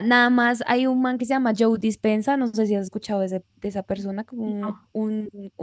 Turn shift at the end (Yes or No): No